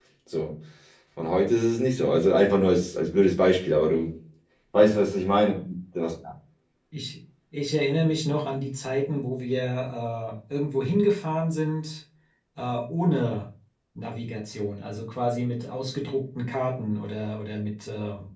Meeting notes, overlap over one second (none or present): none